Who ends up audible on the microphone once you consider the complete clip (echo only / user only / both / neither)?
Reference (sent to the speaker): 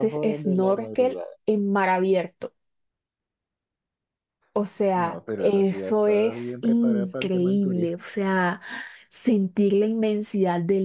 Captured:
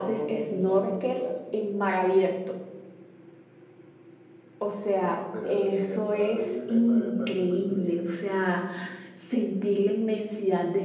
echo only